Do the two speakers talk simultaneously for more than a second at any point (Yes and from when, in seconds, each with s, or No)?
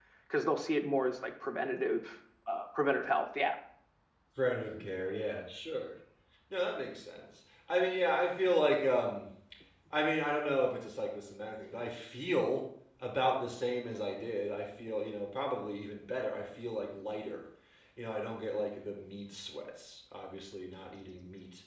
No